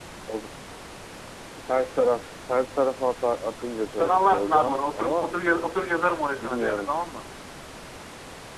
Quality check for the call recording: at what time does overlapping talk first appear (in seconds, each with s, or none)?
4.0 s